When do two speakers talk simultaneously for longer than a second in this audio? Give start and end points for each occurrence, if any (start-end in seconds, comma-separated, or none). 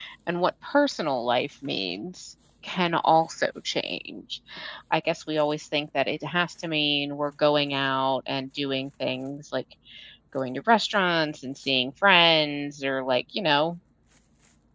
none